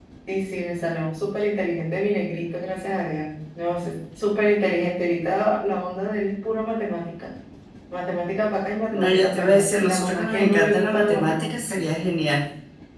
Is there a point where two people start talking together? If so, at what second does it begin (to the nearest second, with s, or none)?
9 s